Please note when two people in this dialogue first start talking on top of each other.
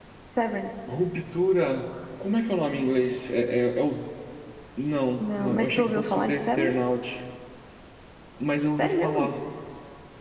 5 s

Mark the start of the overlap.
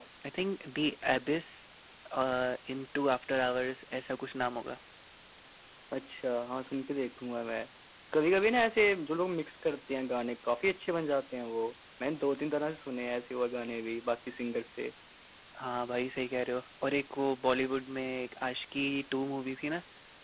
none

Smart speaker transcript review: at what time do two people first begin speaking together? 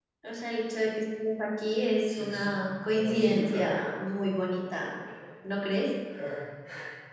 2 s

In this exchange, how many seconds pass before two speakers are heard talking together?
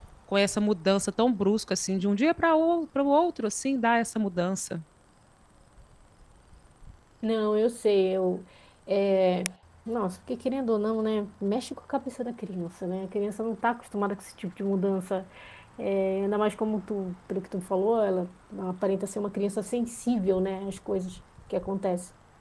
none

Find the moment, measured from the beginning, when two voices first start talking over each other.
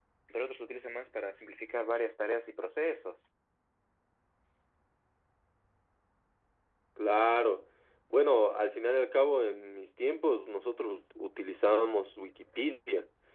none

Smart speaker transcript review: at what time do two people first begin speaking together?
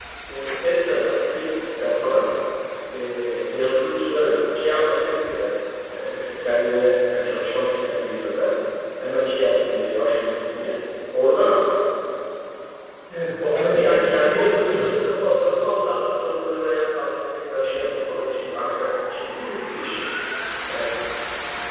13 s

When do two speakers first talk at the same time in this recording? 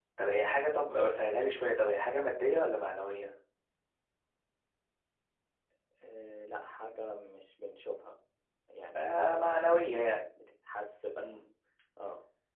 9 s

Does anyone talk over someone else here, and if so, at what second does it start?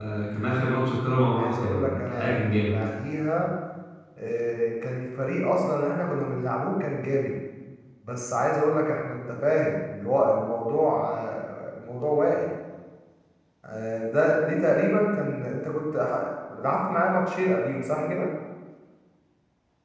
1 s

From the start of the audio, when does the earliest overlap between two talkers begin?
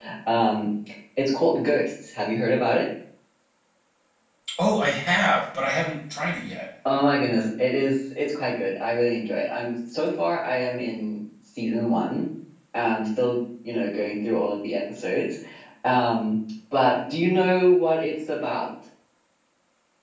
none

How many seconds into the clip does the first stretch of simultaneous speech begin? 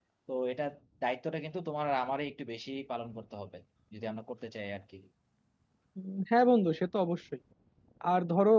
none

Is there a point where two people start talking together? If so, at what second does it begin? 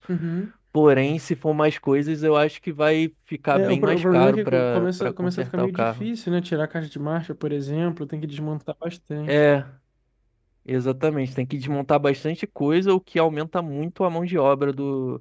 4 s

